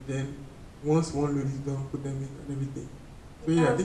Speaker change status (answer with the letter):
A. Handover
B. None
B